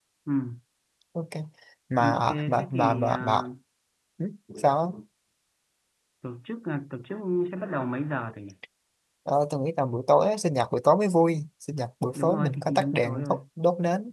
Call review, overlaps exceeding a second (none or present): present